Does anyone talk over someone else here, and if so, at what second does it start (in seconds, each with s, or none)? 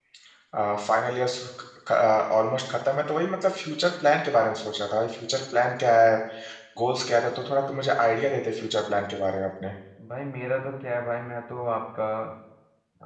none